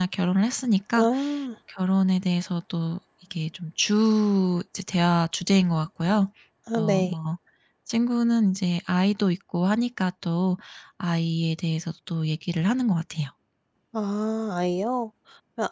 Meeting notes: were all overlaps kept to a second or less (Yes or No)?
Yes